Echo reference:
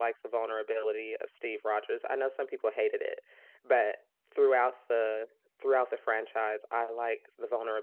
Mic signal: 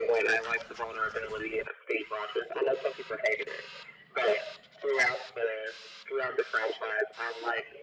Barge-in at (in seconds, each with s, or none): none